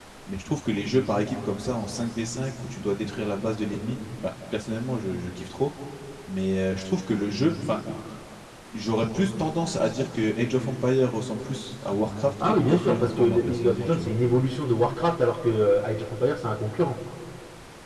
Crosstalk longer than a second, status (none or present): present